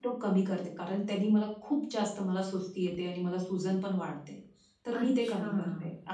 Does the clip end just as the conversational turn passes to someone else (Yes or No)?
No